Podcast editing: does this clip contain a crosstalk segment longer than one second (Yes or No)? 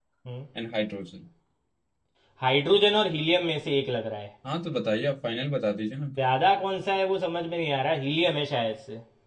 No